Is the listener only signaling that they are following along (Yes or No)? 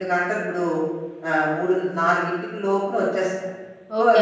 No